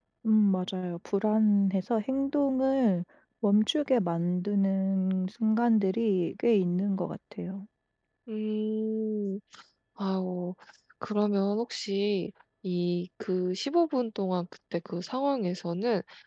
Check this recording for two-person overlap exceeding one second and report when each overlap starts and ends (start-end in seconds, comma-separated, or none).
none